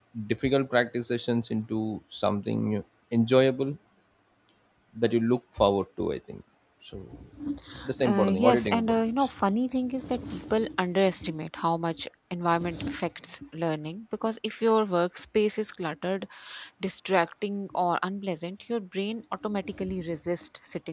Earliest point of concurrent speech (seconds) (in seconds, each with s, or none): 8.0 s